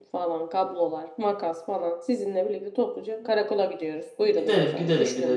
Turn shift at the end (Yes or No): Yes